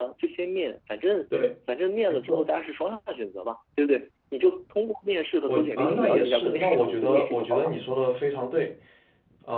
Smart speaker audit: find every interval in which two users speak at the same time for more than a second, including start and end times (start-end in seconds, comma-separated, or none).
5.5-7.7